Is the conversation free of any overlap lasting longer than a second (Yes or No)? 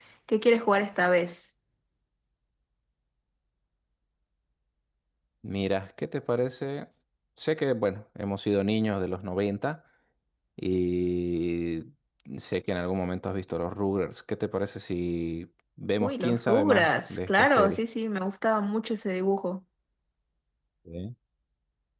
No